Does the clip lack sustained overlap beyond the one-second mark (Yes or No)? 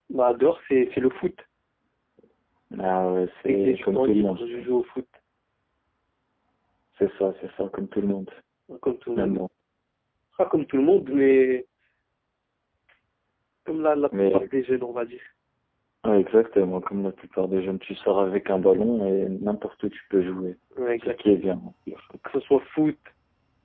No